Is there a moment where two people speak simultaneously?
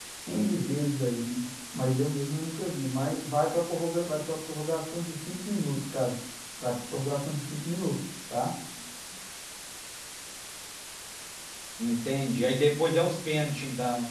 No

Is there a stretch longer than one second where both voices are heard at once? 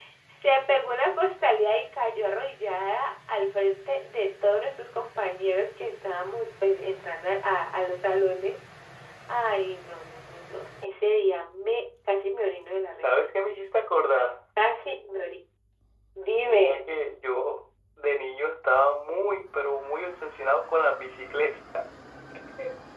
No

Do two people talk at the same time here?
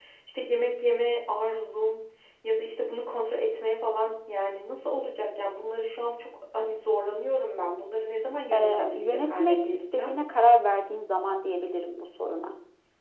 Yes, from 8.5 s

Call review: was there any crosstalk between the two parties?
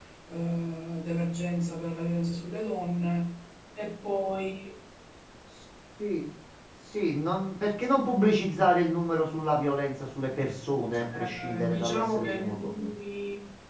Yes, from 11.1 s

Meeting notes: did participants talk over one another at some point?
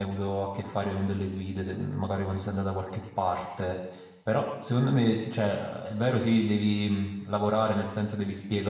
No

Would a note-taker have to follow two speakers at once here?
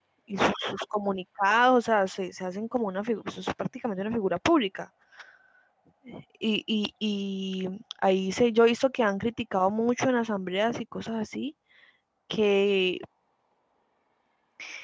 No

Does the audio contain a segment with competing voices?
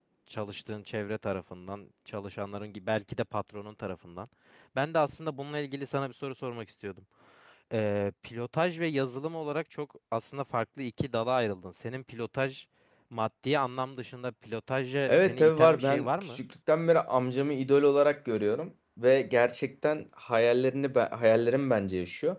Yes, from 15.1 s

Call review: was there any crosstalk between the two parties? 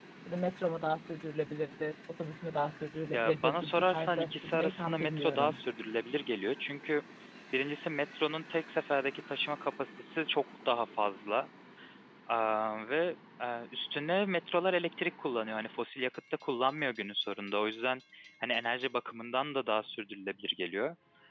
Yes, from 3.1 s

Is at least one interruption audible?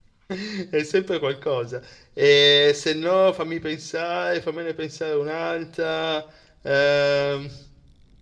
No

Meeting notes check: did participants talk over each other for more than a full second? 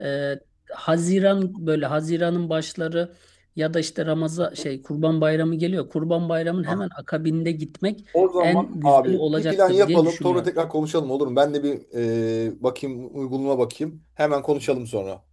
Yes, from 8.4 s

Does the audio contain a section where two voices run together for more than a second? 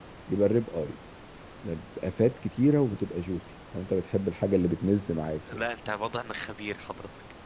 No

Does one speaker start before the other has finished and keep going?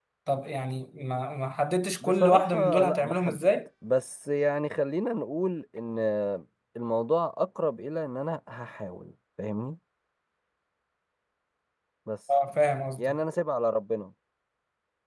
Yes, from 2.0 s

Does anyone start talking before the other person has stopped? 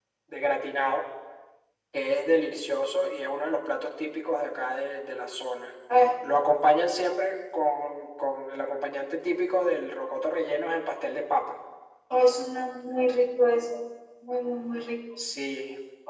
No

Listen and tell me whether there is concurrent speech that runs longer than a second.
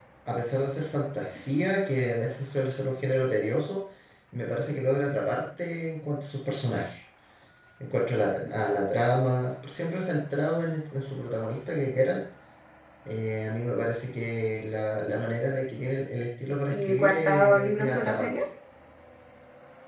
Yes, from 16.7 s

